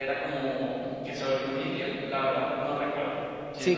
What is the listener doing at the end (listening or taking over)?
taking over